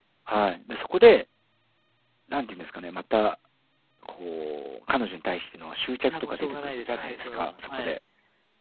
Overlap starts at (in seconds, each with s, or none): 6.1 s